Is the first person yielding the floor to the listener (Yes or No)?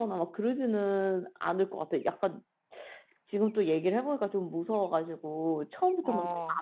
No